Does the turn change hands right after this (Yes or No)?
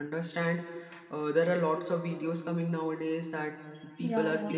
No